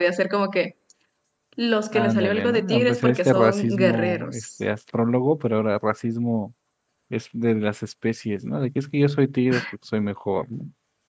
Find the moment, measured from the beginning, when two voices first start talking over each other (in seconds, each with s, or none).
1.9 s